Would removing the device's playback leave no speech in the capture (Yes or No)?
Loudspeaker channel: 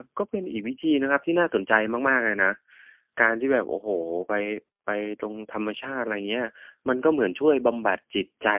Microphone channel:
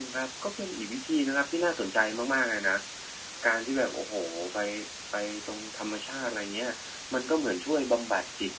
Yes